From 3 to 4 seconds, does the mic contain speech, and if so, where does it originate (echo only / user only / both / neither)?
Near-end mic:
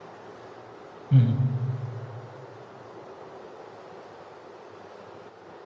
neither